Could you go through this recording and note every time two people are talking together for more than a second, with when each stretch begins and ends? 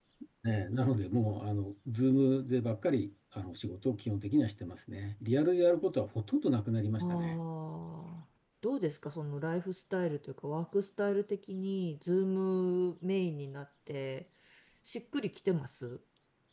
none

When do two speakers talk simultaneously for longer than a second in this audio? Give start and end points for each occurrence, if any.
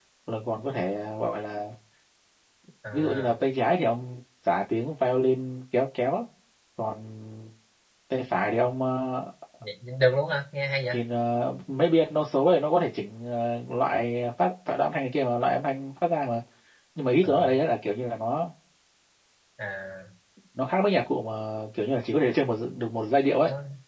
none

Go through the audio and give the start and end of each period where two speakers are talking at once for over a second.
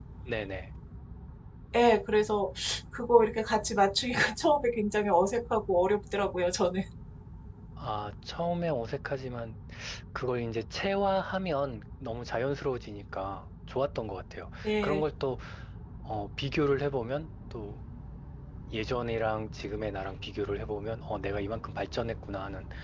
none

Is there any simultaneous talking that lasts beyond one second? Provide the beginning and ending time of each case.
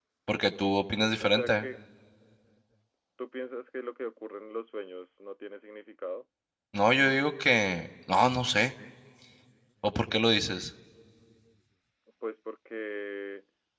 none

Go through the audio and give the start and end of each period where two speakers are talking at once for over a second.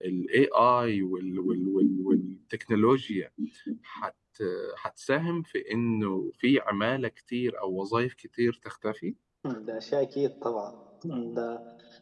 none

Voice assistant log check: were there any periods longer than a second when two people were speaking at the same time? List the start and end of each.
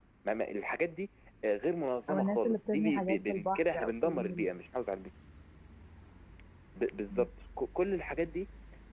2.1-4.5

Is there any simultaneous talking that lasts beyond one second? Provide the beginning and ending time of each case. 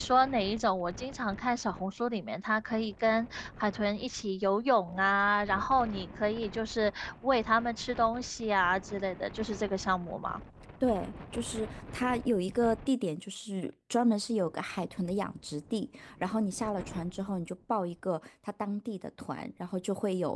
none

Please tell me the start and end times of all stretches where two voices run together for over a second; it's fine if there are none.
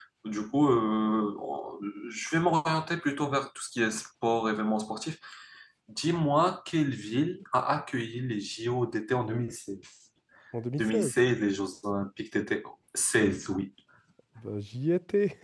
none

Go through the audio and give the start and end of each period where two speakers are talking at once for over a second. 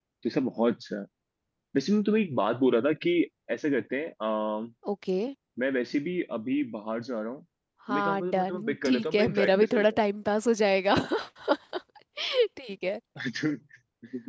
7.9-9.8

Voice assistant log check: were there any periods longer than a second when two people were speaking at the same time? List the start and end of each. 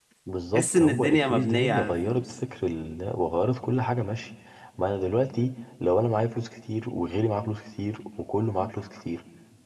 0.8-2.3

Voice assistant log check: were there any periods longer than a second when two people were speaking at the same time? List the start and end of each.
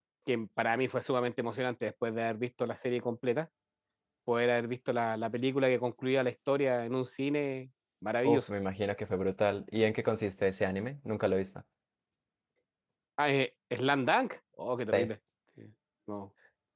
none

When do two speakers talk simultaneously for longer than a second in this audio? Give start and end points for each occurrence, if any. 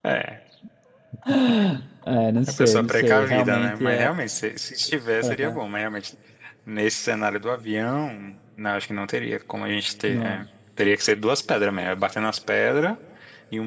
2.6-4.1

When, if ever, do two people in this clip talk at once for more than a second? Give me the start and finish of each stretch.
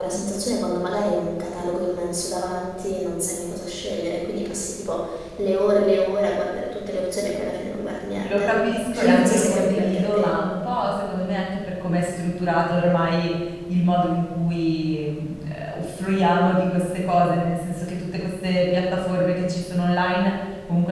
9.0-10.3

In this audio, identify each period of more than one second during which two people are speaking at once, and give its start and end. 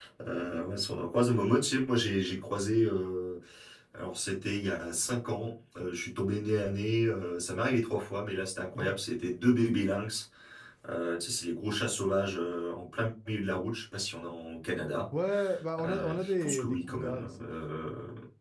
15.8-17.5

